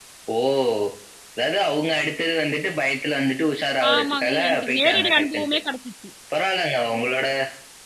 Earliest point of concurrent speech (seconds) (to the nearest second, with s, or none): 4 s